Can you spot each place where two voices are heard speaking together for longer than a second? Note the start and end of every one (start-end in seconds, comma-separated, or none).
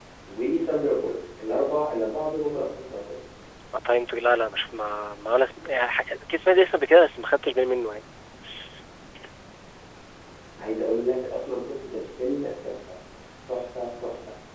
none